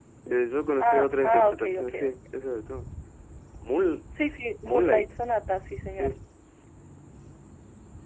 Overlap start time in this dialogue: 0.8 s

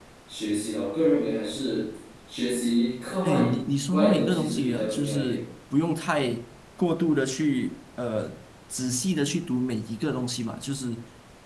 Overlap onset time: 3.2 s

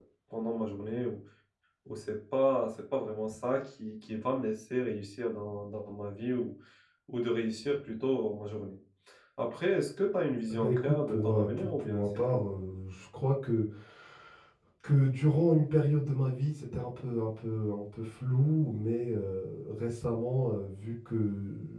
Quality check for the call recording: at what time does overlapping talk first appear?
10.5 s

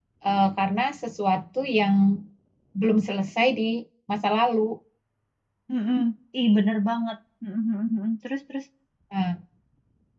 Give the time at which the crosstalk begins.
none

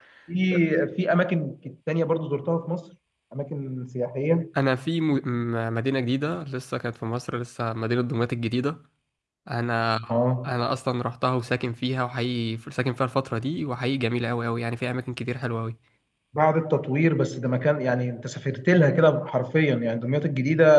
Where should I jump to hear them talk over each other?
none

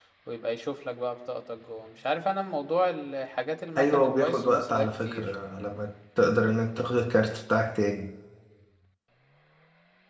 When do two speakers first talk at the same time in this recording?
3.8 s

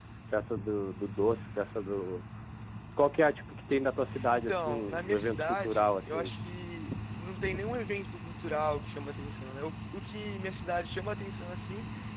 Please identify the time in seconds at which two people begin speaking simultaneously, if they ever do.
4.3 s

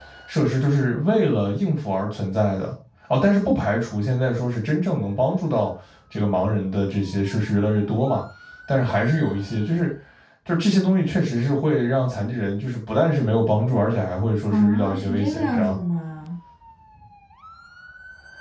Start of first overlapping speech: 14.5 s

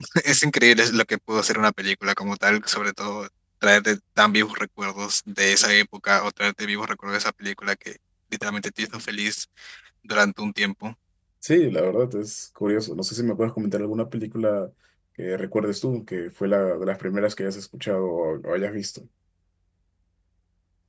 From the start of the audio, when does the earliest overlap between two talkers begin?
none

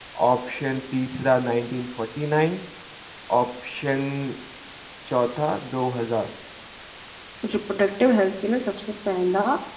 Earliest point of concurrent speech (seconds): none

